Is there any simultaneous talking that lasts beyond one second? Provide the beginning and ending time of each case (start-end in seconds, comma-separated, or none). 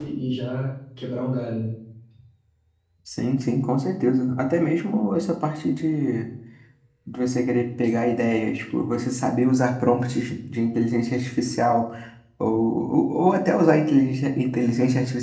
none